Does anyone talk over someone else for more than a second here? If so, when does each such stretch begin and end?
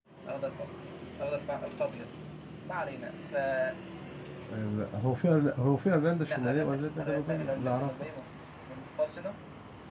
6.3-8.1

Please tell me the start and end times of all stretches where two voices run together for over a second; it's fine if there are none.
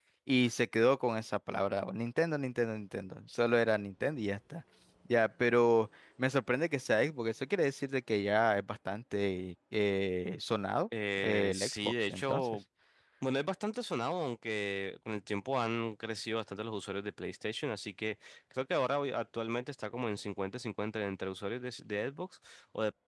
11.2-12.5

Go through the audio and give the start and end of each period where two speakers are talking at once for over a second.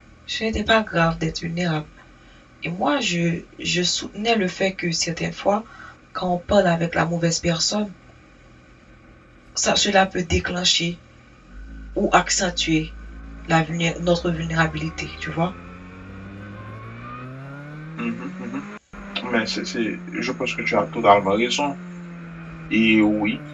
none

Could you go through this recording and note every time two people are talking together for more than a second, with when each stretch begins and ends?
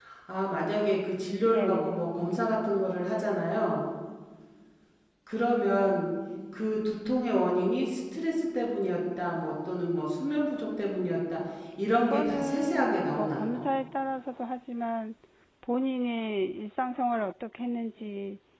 12.0-13.6

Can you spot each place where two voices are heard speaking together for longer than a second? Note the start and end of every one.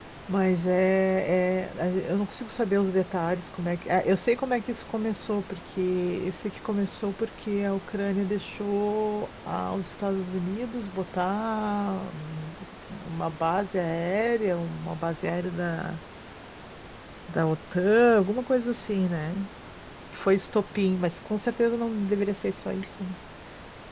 none

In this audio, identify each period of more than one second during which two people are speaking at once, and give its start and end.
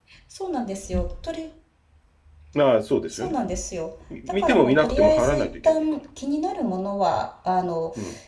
4.3-5.8

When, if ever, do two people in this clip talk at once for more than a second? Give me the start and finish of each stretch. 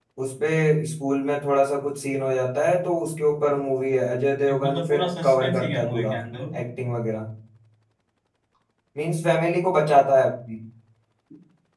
4.6-6.2

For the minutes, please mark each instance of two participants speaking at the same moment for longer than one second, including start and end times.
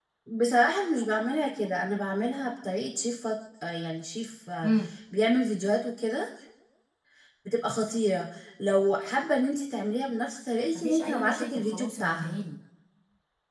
10.8-12.4

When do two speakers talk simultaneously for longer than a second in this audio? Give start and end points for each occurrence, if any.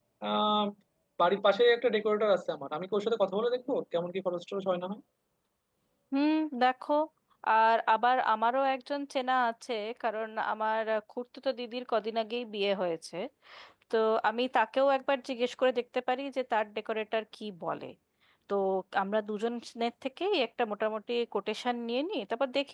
none

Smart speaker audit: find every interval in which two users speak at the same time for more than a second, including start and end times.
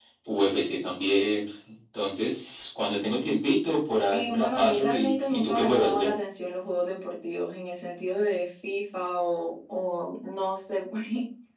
4.1-6.1

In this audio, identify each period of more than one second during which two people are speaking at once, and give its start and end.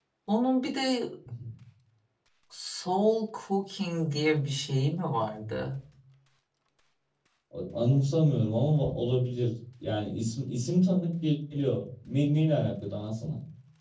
none

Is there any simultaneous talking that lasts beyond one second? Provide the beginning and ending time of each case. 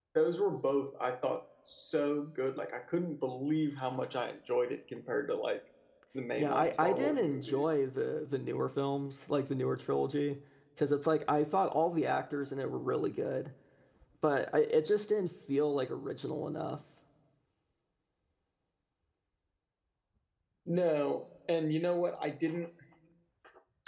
6.4-7.8

